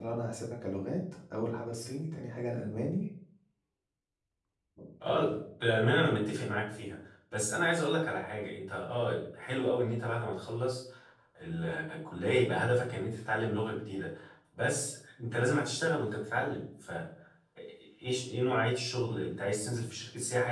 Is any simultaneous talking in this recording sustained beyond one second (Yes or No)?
No